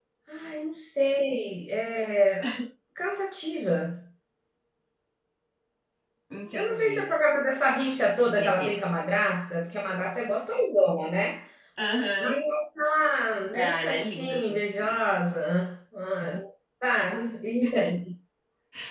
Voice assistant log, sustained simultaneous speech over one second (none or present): present